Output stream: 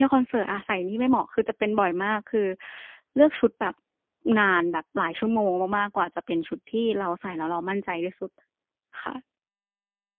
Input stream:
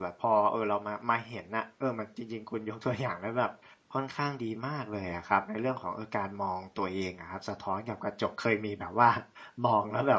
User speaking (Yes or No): Yes